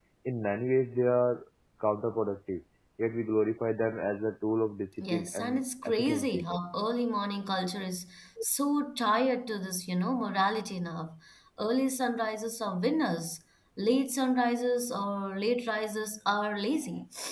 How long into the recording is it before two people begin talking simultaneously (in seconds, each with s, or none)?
5.0 s